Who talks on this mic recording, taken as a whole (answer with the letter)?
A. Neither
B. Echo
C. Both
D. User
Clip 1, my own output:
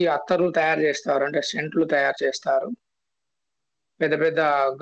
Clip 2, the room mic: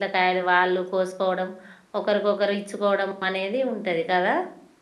D